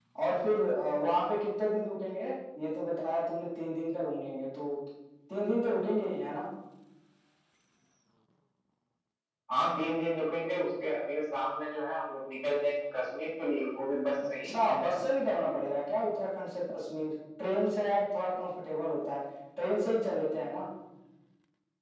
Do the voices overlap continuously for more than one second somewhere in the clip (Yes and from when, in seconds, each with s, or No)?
No